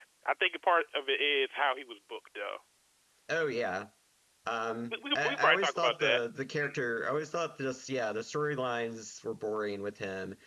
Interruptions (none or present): present